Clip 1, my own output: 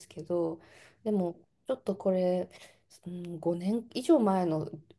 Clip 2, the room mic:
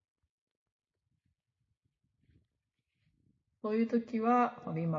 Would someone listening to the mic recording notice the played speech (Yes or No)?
No